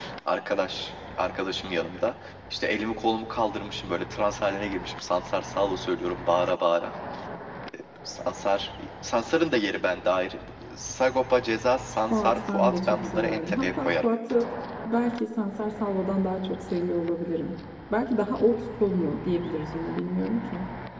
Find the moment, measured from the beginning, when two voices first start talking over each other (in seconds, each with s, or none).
12.1 s